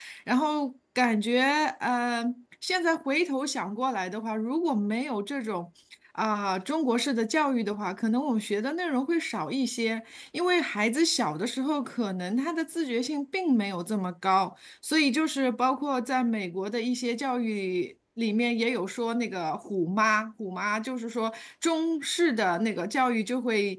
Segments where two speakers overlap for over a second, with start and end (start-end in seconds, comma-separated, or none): none